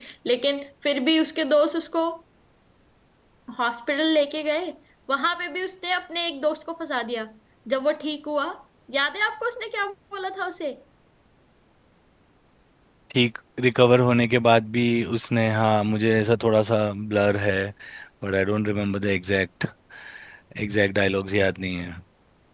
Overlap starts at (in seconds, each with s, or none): none